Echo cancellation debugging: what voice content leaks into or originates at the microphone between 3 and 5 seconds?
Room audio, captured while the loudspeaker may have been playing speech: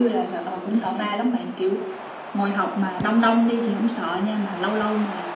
echo only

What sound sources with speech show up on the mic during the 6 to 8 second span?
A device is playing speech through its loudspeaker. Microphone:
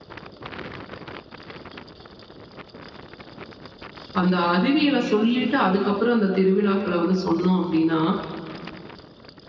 user only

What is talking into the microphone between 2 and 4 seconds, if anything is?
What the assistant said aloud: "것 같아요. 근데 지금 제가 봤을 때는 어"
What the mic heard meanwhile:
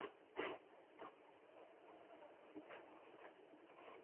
neither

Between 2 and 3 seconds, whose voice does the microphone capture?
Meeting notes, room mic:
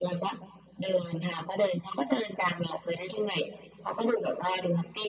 echo only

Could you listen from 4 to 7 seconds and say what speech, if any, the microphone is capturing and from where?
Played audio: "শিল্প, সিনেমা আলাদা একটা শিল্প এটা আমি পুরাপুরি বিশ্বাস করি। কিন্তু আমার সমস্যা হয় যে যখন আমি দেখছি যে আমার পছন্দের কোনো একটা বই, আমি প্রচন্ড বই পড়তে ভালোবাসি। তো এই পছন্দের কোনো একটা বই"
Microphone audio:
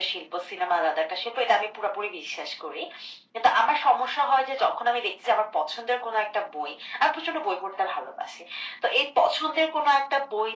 echo only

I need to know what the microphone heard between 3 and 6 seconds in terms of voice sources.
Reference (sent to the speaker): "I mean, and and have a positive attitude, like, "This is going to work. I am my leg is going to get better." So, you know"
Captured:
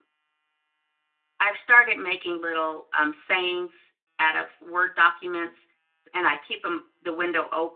user only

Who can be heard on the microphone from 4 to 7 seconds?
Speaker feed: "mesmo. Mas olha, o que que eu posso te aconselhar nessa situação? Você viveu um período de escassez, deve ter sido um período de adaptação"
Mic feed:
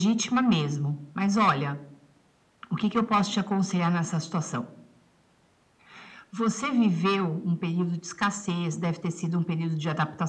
echo only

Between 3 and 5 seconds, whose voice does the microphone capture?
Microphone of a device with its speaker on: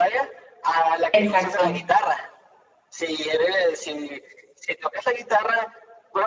echo only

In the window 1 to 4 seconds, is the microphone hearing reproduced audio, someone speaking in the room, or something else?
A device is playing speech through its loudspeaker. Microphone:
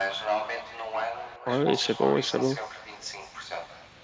both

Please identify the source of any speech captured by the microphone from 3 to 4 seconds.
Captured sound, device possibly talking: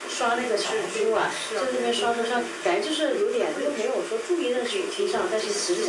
echo only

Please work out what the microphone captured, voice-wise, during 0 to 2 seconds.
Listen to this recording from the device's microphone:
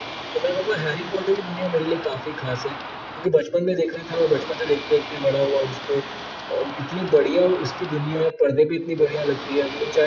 echo only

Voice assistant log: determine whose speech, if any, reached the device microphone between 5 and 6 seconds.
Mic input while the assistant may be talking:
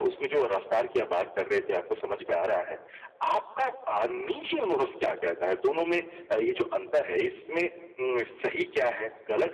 echo only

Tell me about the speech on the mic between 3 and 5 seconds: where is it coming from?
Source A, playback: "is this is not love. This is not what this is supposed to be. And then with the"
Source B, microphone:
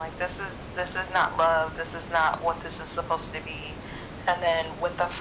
echo only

